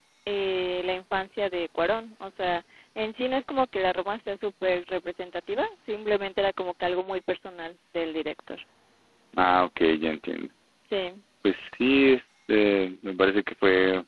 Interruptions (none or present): none